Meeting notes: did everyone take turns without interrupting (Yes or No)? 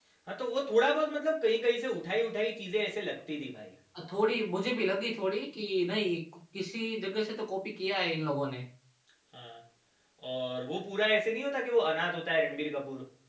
Yes